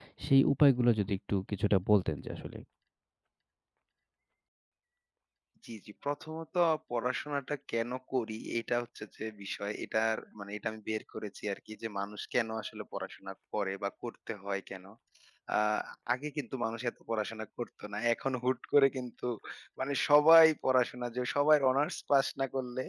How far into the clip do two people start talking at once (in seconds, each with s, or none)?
none